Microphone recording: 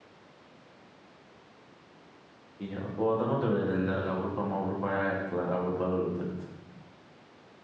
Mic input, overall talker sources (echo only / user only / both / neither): user only